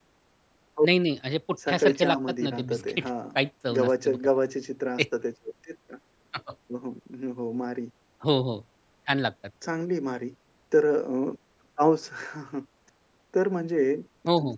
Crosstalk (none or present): present